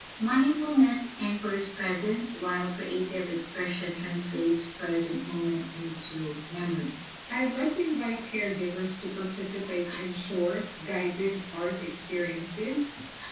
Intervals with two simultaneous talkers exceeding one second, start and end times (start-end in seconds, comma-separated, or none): none